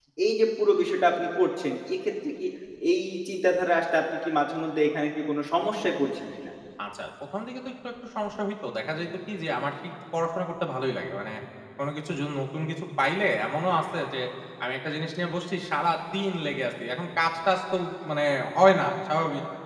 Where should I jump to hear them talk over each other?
none

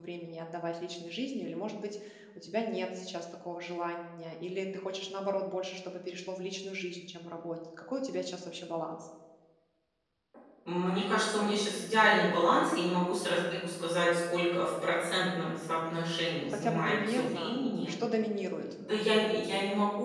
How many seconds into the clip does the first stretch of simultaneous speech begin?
16.4 s

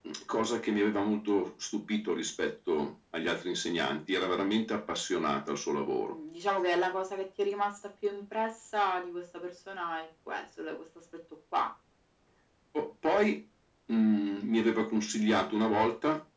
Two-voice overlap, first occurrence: none

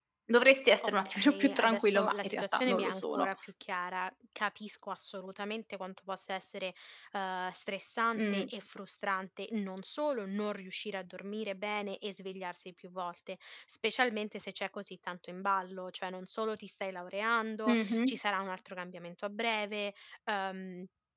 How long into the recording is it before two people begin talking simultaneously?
0.8 s

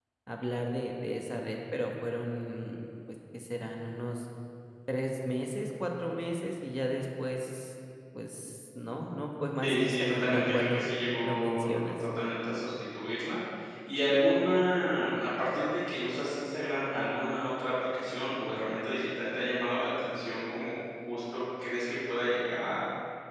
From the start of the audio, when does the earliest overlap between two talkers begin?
9.6 s

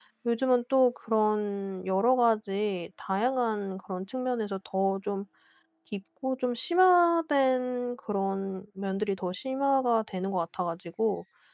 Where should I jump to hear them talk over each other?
none

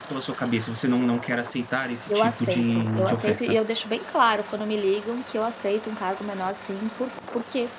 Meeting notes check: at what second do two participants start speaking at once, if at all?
2.1 s

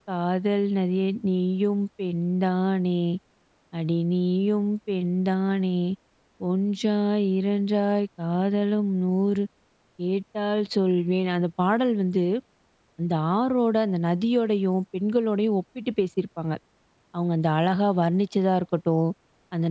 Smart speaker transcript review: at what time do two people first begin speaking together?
none

